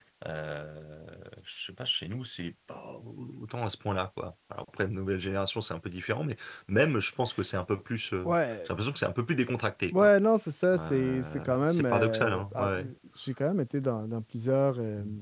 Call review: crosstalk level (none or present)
present